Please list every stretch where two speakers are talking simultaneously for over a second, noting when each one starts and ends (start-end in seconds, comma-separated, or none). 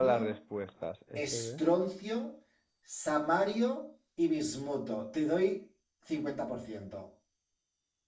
none